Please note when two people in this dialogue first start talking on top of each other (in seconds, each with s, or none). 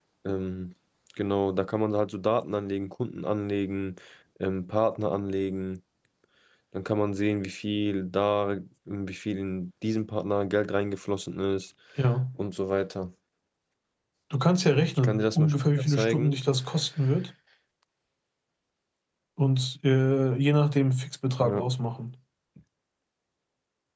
15.0 s